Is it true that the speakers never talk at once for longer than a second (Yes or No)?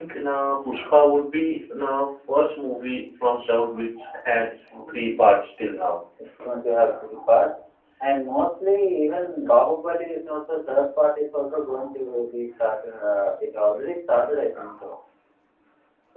Yes